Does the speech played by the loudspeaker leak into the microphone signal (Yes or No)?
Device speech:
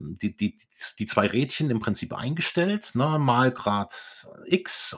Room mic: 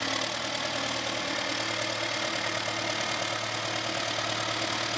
No